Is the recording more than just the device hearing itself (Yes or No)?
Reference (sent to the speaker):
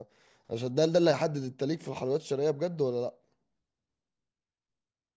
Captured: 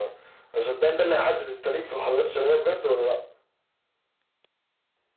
No